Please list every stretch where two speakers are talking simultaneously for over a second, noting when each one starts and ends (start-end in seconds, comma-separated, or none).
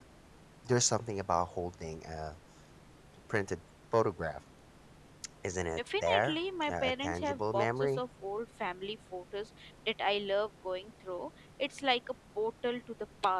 5.8-8.0